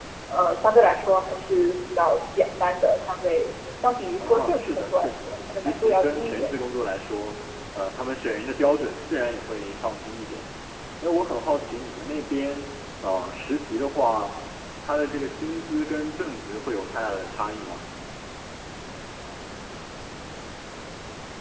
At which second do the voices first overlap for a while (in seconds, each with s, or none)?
4.3 s